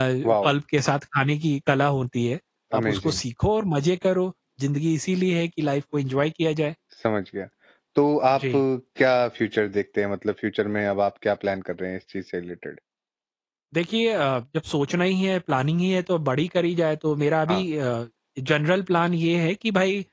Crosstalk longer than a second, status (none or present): none